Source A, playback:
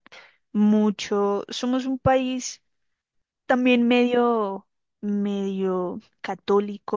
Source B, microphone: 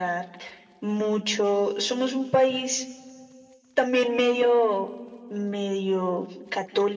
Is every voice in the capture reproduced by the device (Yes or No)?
Yes